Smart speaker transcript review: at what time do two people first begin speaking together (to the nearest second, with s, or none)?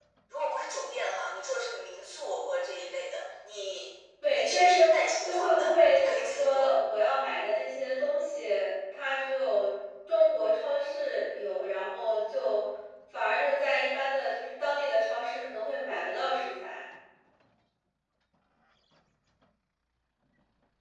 4 s